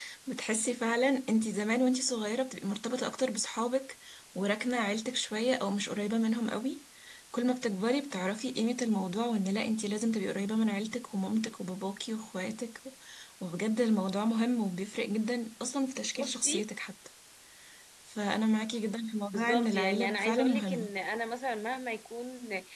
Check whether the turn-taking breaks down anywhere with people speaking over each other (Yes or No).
Yes